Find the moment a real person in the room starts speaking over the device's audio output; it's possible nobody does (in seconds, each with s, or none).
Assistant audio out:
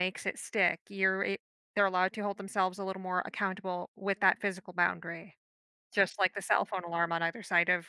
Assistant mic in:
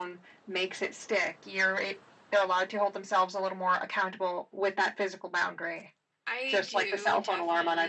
6.2 s